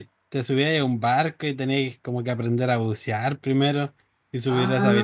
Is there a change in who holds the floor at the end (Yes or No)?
Yes